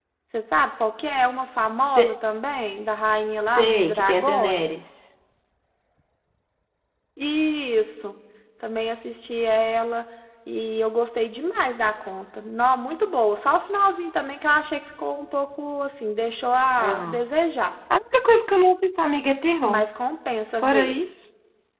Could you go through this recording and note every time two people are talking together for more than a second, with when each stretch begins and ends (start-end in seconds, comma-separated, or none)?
3.6-4.9